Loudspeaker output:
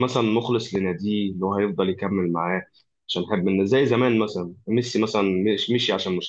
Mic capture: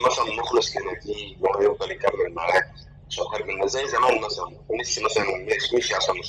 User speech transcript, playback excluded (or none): none